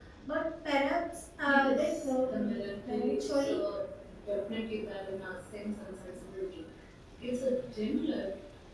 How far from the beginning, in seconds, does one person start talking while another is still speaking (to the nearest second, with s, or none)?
1 s